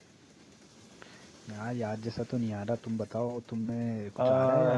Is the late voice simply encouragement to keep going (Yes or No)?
No